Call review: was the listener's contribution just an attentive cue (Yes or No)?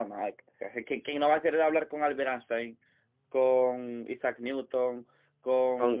Yes